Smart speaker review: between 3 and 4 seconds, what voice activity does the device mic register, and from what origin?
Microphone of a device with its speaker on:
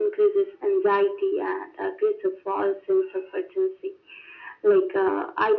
echo only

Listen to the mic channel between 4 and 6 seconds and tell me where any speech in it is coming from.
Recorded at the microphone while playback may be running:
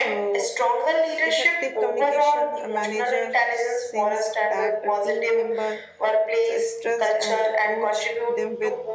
both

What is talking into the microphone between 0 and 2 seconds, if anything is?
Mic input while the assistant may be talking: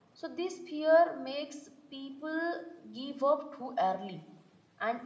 user only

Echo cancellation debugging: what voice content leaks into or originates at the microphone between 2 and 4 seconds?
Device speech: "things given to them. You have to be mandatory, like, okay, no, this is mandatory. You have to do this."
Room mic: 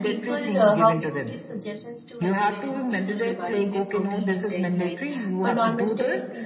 both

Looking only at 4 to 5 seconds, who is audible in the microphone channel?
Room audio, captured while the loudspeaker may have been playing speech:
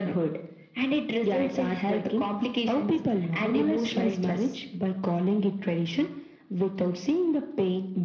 echo only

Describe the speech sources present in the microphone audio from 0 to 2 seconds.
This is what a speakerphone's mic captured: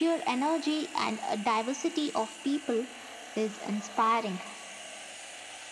echo only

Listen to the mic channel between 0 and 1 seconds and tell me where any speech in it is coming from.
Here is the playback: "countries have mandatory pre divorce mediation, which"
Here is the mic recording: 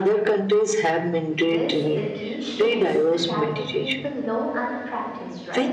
echo only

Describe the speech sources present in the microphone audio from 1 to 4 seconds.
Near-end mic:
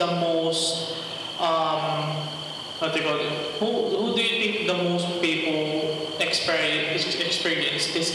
echo only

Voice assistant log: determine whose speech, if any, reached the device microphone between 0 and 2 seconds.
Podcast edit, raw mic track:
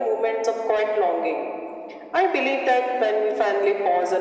echo only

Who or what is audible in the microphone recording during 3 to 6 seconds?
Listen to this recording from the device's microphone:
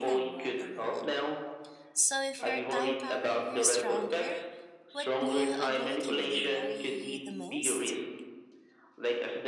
both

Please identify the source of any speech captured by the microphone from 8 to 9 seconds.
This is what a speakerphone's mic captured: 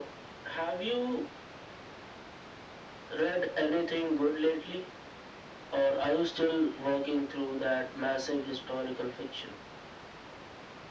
echo only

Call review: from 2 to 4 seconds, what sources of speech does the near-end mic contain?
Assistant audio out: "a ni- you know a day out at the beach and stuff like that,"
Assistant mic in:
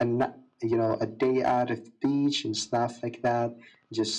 echo only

